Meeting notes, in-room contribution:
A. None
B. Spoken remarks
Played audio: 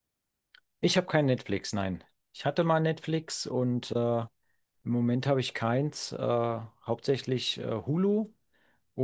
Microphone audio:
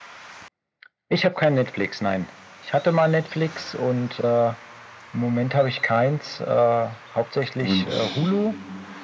B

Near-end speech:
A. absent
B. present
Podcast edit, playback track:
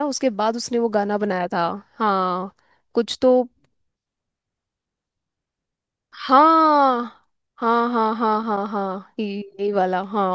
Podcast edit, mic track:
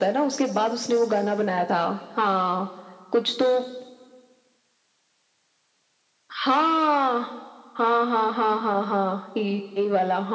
A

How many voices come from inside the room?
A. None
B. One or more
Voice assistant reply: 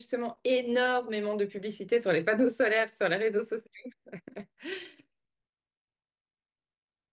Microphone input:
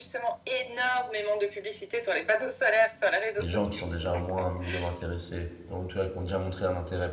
B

